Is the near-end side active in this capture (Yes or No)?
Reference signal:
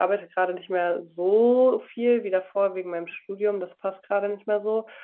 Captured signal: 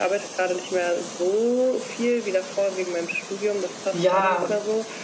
Yes